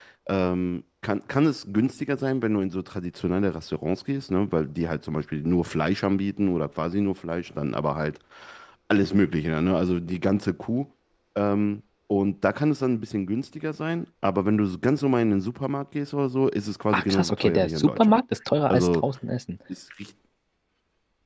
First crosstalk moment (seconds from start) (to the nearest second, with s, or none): 17 s